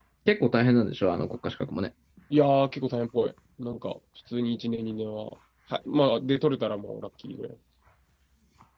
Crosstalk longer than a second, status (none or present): none